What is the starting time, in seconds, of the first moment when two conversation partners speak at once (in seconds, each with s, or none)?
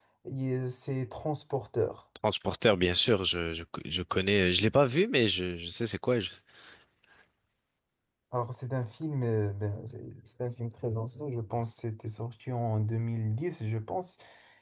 none